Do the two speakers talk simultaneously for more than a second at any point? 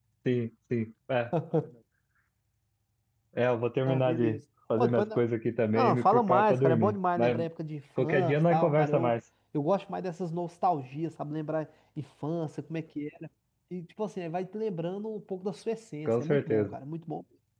Yes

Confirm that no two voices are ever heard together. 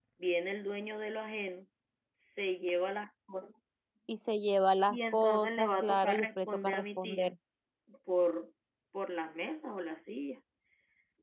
No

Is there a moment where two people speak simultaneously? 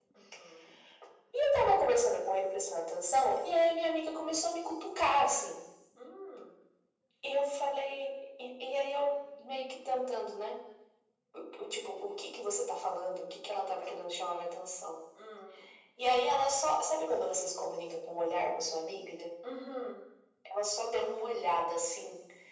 No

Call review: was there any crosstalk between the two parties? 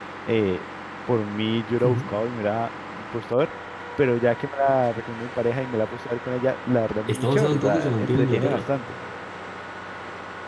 Yes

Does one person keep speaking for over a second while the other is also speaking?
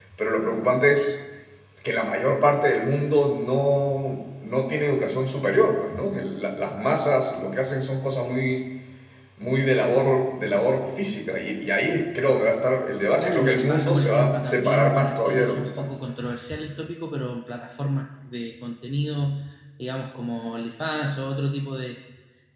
Yes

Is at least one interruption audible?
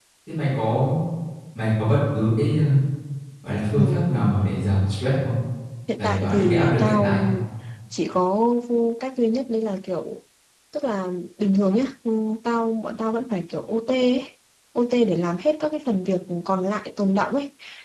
Yes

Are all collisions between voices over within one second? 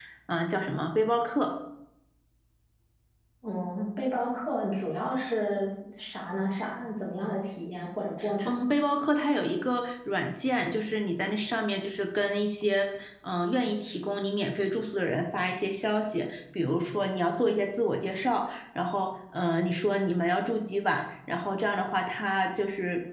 Yes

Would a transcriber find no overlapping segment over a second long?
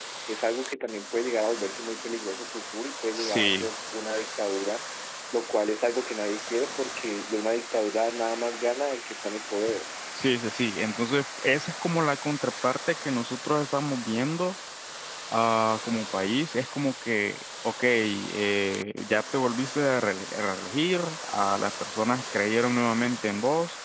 Yes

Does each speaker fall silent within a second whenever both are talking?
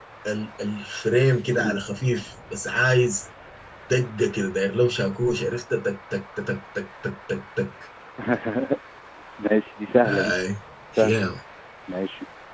Yes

